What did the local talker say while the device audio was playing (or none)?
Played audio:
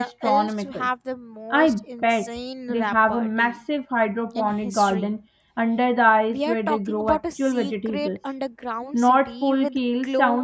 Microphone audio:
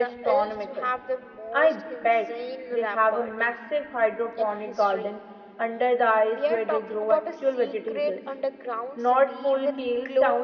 none